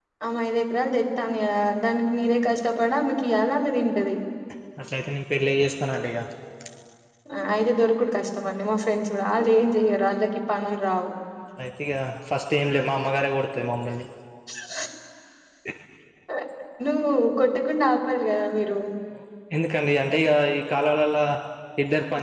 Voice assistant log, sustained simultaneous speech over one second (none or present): none